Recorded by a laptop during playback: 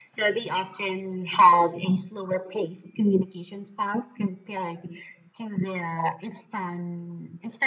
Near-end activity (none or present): none